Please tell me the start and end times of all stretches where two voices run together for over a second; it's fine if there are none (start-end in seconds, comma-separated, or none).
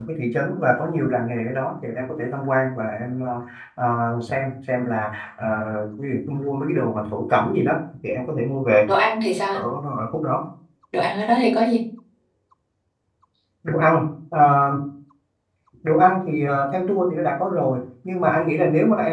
none